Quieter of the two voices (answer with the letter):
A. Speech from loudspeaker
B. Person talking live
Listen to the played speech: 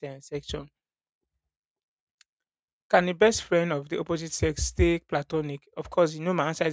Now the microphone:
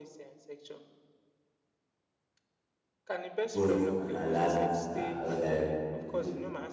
A